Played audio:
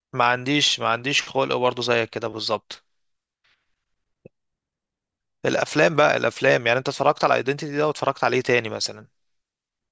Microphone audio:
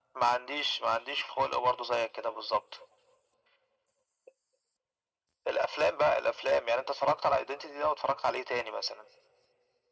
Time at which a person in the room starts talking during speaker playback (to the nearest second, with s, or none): none